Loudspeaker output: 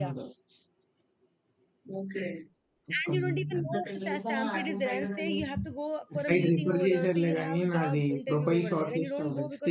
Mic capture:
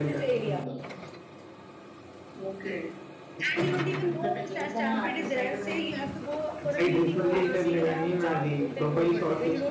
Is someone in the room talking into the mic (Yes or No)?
No